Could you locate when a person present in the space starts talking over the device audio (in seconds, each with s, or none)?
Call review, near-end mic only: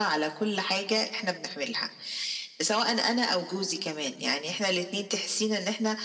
none